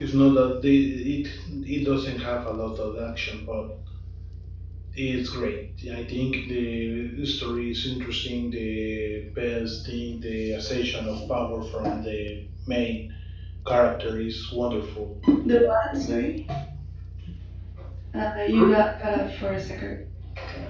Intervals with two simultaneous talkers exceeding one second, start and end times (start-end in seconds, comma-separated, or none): none